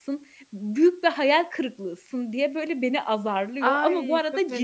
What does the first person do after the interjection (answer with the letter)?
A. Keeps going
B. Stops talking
B